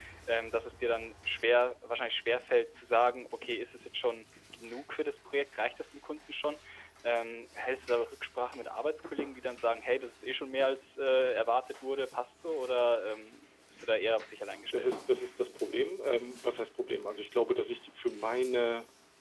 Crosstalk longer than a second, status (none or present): none